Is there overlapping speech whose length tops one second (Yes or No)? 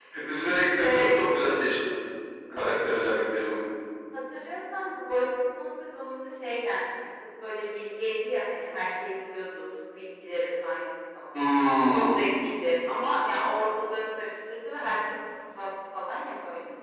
No